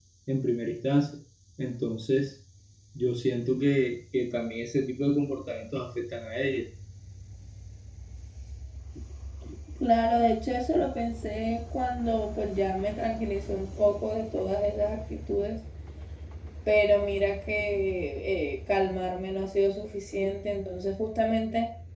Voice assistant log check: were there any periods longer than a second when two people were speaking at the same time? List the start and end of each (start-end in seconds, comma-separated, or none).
none